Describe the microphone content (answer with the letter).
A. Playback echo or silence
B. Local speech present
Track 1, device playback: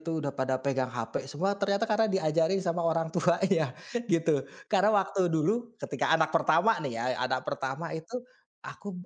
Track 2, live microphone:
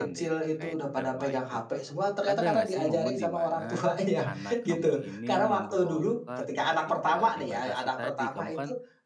B